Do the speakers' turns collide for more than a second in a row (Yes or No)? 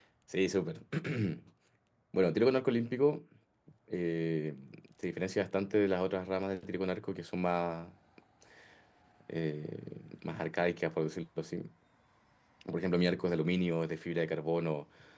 No